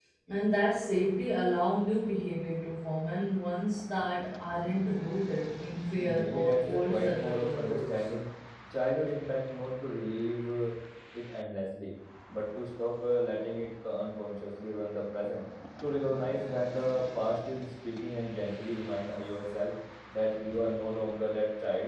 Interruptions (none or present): present